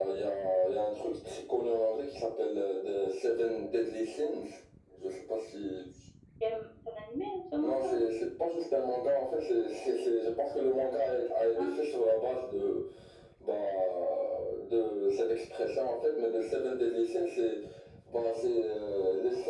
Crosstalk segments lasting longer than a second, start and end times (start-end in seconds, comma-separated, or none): none